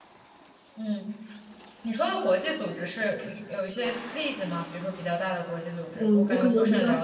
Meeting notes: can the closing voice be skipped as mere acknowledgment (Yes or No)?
No